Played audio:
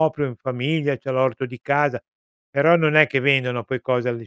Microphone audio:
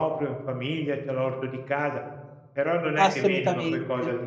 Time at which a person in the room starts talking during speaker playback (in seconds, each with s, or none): 3.0 s